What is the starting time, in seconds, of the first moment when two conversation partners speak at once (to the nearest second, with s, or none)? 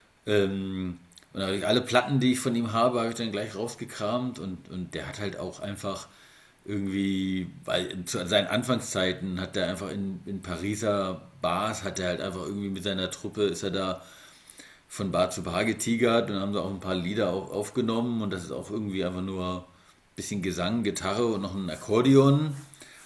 none